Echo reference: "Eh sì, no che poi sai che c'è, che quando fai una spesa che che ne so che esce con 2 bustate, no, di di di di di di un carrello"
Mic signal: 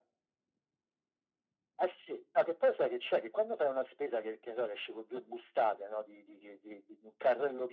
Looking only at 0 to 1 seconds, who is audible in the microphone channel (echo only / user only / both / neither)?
neither